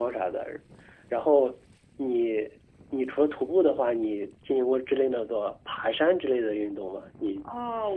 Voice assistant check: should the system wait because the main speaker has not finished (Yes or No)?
No